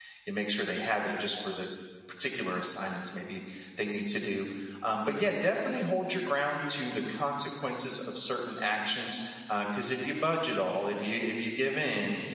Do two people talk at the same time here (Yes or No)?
No